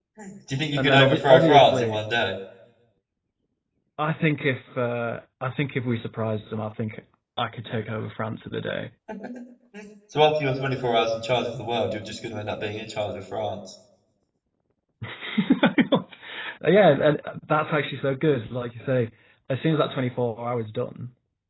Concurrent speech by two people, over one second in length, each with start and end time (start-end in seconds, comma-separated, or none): 0.8-2.0